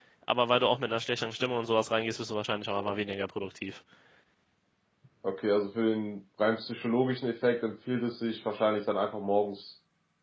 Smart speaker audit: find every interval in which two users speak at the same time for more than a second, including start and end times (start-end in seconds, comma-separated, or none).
none